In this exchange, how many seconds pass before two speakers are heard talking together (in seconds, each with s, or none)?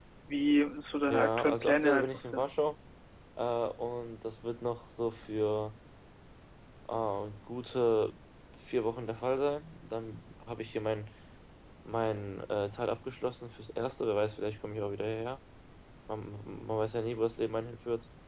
1.0 s